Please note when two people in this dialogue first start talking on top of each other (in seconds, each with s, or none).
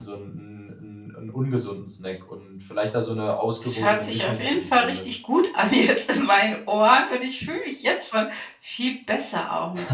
3.6 s